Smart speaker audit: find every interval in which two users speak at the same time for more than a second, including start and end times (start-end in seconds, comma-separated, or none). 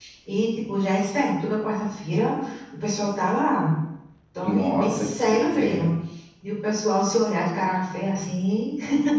4.4-5.9